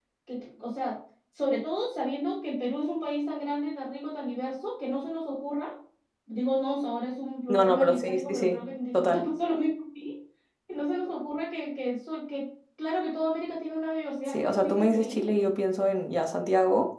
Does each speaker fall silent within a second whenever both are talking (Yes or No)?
No